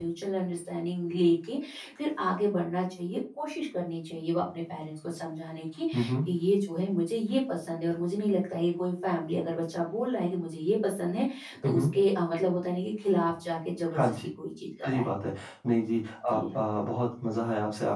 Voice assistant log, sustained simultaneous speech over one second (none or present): none